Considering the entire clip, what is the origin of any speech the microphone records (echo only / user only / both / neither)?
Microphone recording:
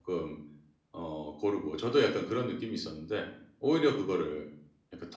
user only